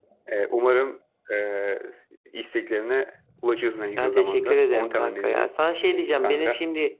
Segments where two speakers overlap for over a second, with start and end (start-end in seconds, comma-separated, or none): 4.0-5.5